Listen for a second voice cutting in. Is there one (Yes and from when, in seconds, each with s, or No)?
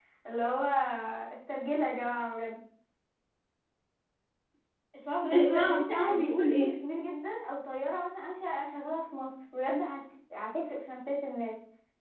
Yes, from 5.3 s